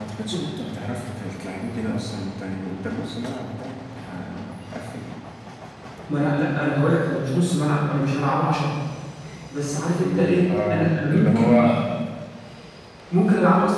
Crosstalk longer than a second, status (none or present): present